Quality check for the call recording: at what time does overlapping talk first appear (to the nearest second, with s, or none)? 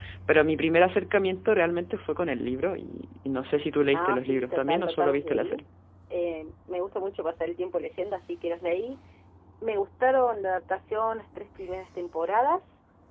4 s